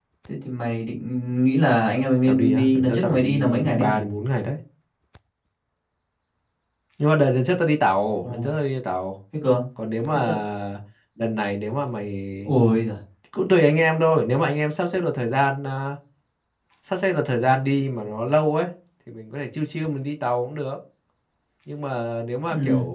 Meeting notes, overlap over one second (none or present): present